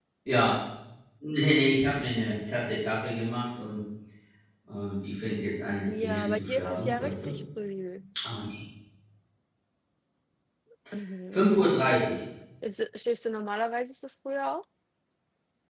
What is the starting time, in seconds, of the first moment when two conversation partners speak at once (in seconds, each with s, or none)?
5.9 s